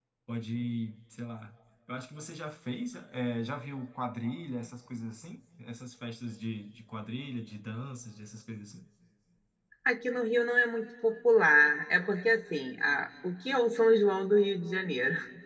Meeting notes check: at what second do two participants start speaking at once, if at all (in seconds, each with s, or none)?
none